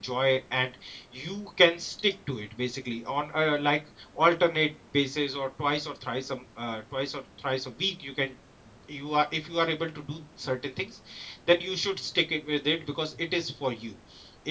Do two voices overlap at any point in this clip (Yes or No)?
No